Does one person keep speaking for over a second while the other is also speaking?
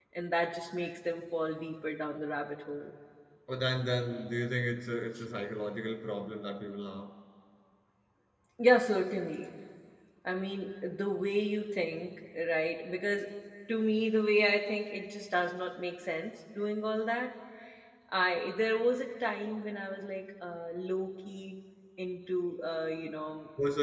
No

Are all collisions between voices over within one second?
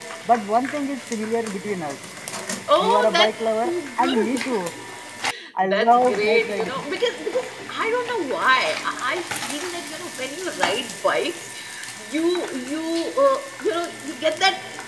No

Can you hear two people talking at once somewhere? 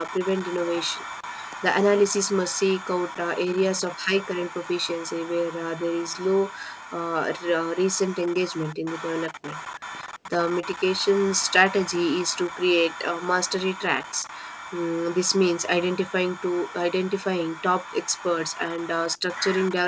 No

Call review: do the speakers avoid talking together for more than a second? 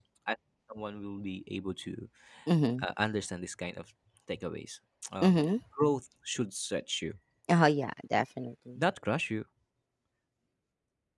Yes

